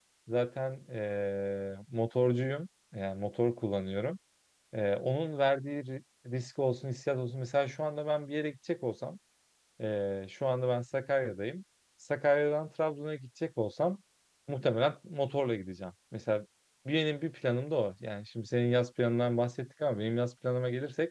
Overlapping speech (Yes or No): No